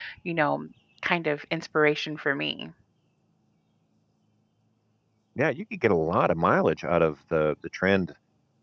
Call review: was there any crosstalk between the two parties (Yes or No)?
No